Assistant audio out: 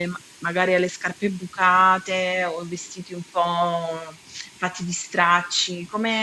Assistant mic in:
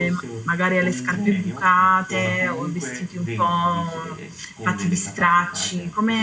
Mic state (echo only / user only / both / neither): both